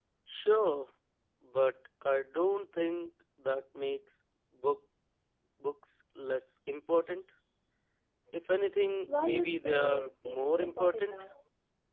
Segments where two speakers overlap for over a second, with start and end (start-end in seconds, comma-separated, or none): 9.2-11.1